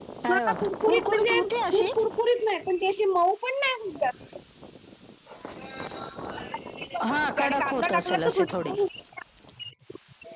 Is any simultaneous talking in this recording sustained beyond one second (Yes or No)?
Yes